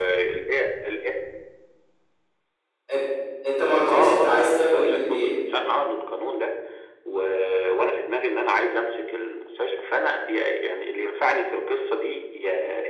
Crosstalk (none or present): present